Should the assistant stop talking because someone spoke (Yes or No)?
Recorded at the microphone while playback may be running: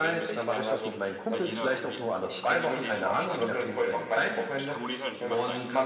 Yes